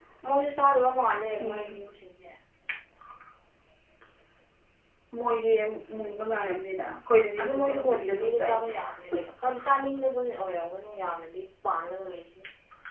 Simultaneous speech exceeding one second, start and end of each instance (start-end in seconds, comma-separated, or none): 7.4-8.7